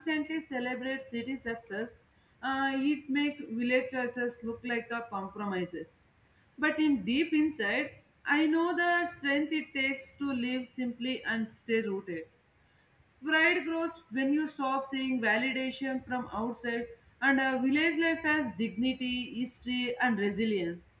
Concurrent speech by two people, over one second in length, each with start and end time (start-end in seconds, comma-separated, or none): none